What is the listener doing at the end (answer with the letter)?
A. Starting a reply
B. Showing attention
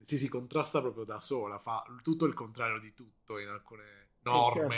A